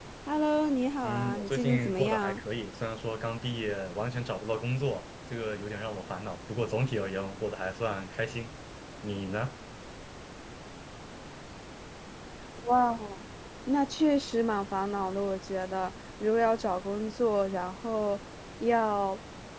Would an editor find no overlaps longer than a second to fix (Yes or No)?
No